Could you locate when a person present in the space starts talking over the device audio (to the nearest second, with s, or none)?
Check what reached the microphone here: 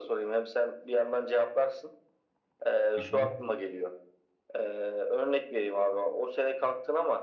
3 s